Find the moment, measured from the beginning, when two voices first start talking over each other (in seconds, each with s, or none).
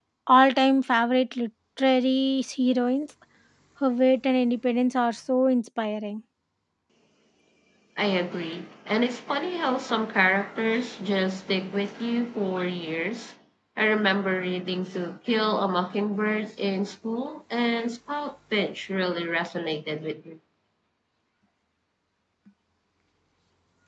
none